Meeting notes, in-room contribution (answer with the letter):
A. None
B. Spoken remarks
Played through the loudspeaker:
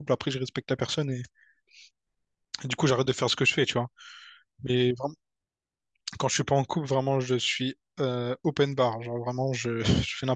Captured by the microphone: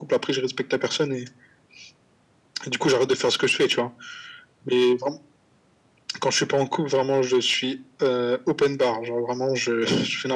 A